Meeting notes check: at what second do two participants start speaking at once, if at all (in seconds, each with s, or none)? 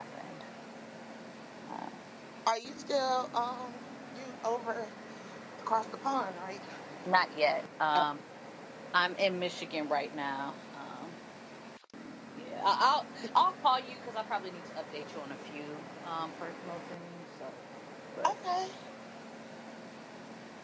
none